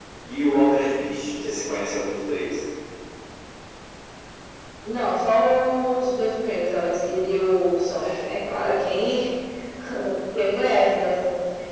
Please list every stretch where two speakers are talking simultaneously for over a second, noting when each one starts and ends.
none

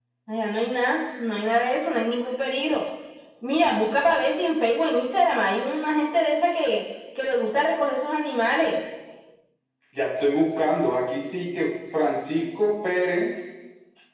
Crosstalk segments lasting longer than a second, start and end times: none

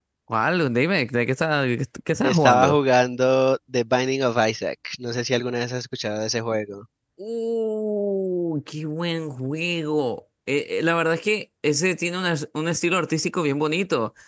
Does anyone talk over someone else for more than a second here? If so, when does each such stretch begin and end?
none

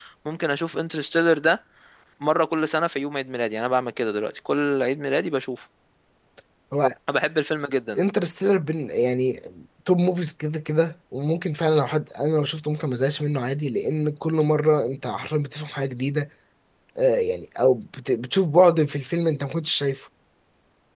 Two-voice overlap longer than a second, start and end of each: none

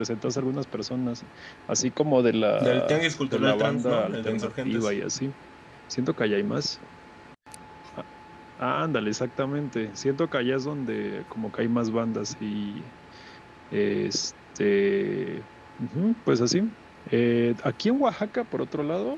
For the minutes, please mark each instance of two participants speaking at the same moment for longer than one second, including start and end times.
2.7-4.9

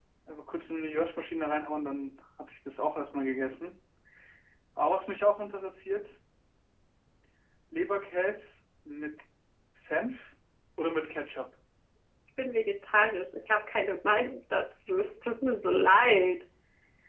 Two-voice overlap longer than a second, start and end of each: none

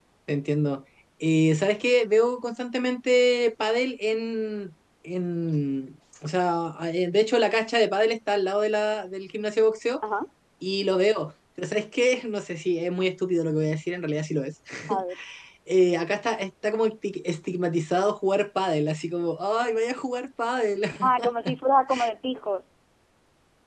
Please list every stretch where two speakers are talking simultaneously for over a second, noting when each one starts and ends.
none

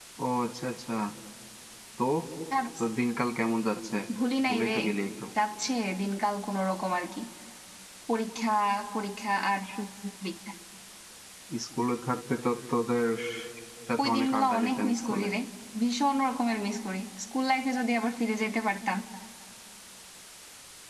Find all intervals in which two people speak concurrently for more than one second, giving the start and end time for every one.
14.0-15.2

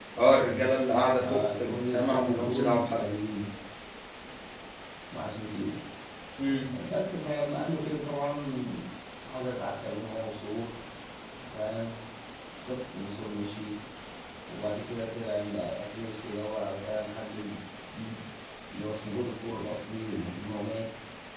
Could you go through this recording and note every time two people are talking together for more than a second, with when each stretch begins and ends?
1.2-3.1

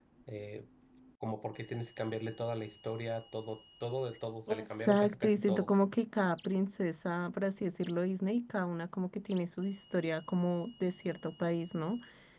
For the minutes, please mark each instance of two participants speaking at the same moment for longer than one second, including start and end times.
4.5-5.7

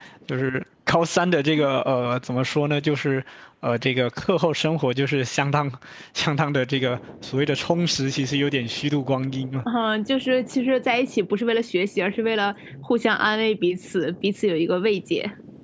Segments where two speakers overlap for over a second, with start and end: none

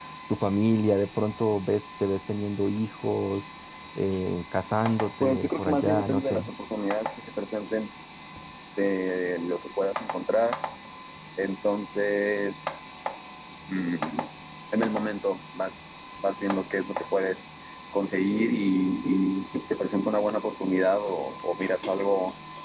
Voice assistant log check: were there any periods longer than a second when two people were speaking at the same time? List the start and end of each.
5.2-6.5

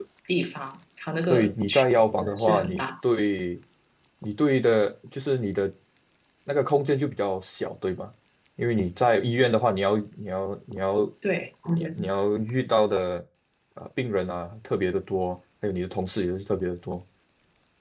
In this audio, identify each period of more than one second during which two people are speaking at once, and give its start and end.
1.3-2.8

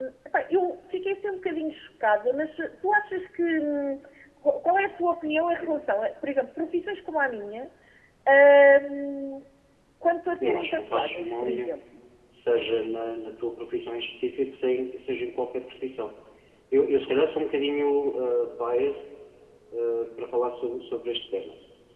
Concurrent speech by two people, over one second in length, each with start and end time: 10.4-11.7

